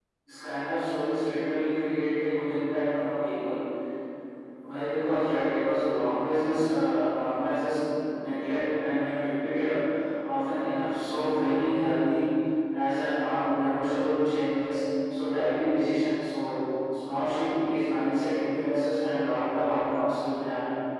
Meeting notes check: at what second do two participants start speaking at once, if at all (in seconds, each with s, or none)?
none